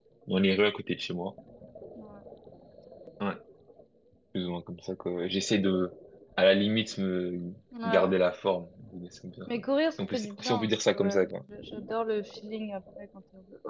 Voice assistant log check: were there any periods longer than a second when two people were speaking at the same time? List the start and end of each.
10.1-11.4

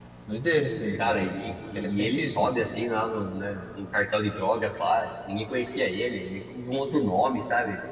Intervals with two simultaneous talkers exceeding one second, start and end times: 1.0-2.5

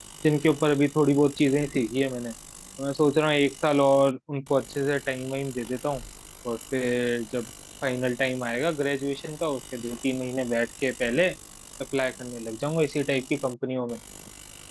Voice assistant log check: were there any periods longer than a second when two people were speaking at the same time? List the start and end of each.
none

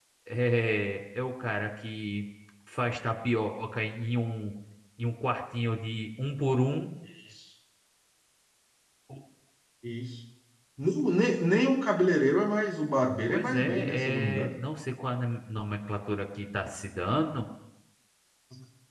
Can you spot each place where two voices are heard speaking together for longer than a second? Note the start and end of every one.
13.3-14.5

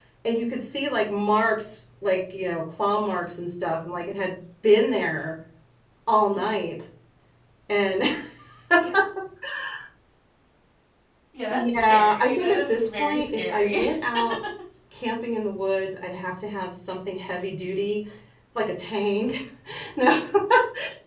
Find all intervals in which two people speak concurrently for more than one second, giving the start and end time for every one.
11.5-13.8

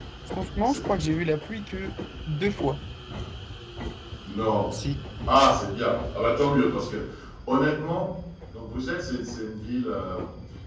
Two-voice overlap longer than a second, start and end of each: none

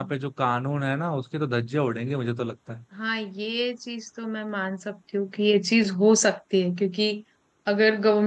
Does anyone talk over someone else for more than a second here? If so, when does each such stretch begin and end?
none

